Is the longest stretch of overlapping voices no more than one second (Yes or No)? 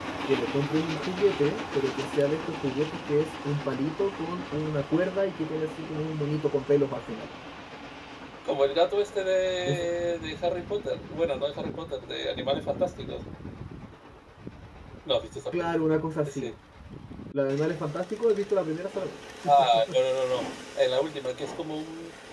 Yes